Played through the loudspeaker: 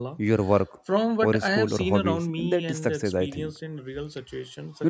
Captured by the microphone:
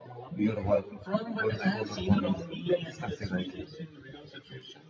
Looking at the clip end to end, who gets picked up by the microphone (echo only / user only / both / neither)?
echo only